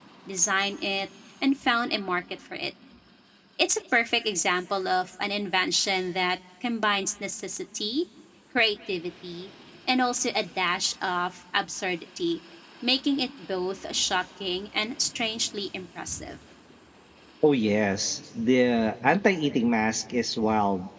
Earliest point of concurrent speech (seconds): none

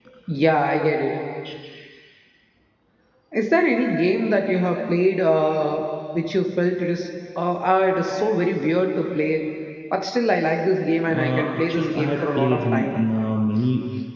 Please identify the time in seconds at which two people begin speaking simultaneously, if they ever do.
11.1 s

